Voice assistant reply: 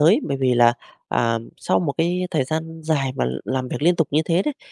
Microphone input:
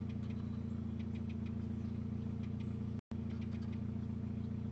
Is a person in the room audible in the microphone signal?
No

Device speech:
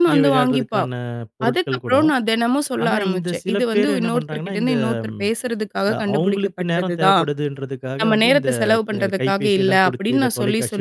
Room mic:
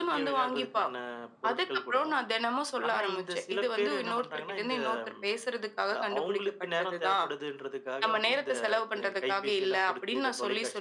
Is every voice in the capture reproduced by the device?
Yes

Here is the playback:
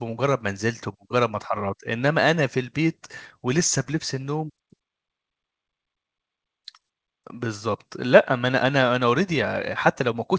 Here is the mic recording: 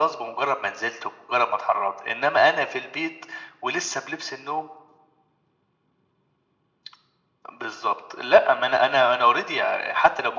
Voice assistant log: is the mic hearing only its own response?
Yes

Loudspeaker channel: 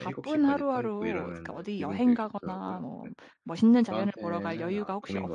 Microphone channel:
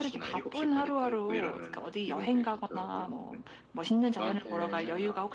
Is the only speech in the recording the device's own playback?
Yes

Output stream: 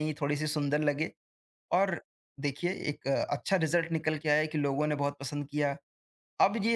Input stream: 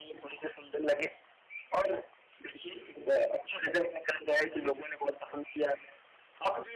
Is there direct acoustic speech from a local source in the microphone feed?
Yes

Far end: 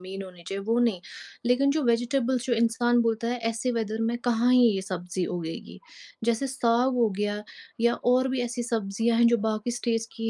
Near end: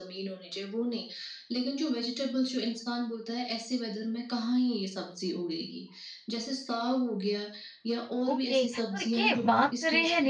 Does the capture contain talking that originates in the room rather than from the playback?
Yes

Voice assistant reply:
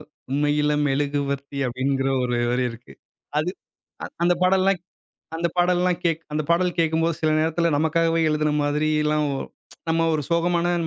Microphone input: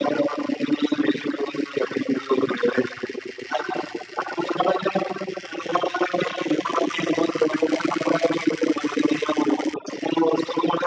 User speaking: No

